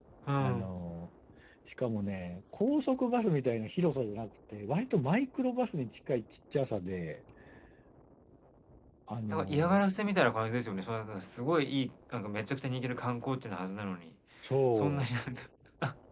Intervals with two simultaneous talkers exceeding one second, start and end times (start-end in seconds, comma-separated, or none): none